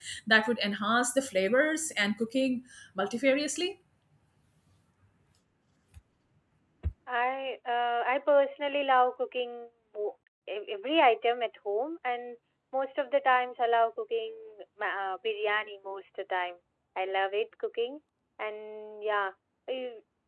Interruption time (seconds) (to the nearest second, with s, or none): none